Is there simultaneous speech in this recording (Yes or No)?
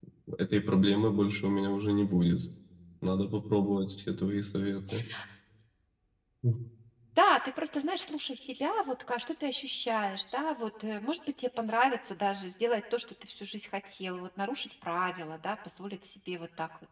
No